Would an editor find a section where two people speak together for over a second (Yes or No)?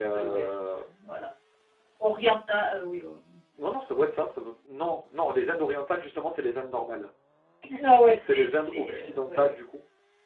Yes